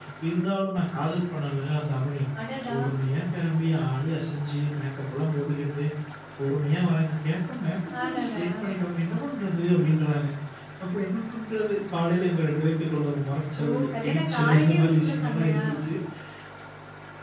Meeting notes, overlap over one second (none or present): present